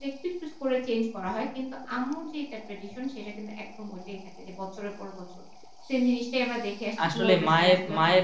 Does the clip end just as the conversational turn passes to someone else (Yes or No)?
Yes